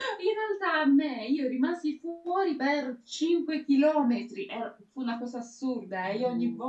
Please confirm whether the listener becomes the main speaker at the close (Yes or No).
No